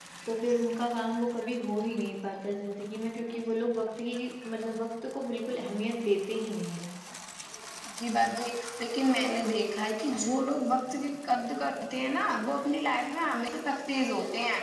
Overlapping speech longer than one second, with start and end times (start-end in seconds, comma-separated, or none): none